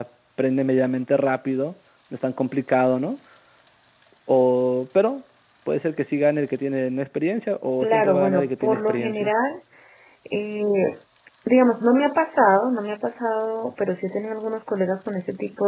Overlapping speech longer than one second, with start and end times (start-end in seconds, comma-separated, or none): 7.8-9.3